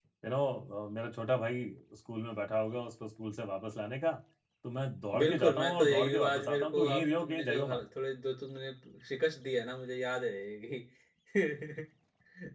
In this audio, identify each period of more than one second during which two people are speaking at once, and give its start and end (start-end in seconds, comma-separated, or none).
5.2-7.8